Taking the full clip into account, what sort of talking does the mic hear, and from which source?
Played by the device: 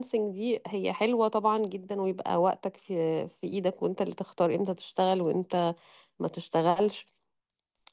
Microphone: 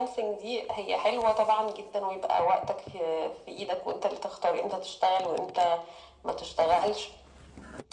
echo only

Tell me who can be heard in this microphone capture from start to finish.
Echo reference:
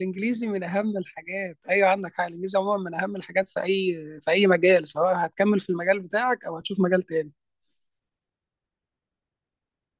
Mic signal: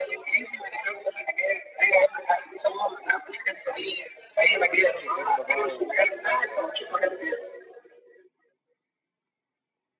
both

